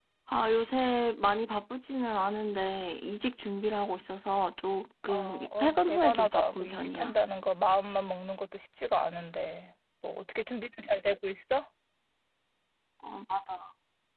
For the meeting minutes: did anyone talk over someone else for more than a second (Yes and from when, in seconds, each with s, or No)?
Yes, from 5.1 s